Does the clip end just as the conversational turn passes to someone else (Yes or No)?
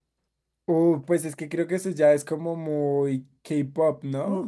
Yes